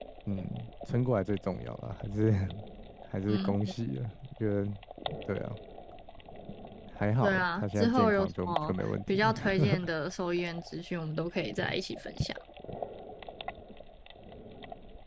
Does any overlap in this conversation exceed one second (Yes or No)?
Yes